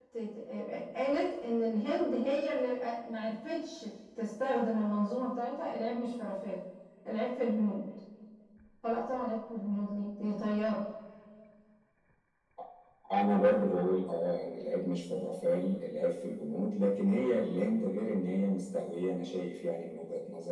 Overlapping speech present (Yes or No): No